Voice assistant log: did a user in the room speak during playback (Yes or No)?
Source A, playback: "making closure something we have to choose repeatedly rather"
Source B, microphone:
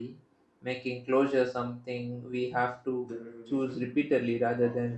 Yes